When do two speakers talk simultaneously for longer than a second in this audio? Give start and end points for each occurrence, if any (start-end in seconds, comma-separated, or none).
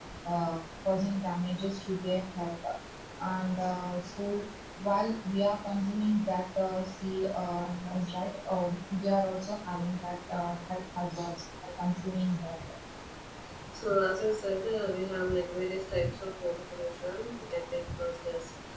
none